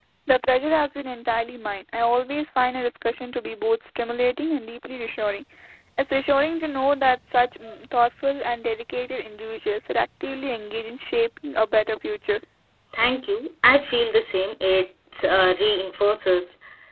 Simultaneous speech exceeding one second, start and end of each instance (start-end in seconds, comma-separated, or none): none